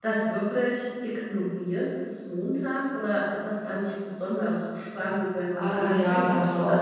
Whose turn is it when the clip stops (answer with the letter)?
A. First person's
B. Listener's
B